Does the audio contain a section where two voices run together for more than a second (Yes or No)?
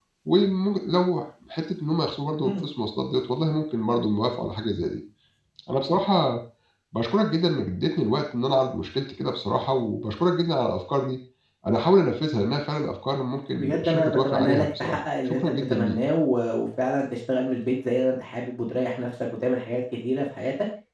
Yes